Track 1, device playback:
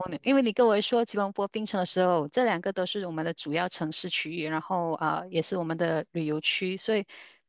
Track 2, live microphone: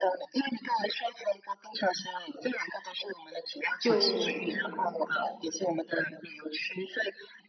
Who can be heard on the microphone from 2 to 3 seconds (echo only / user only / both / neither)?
echo only